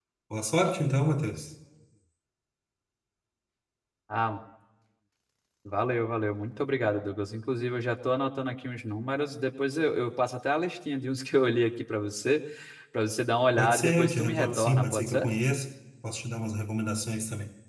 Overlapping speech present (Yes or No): Yes